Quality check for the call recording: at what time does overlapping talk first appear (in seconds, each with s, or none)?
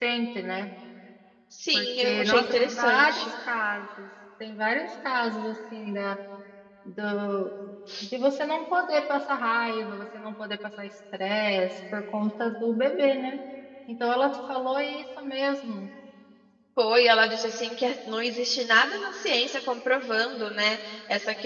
1.7 s